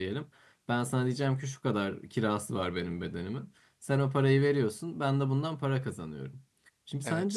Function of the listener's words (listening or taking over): listening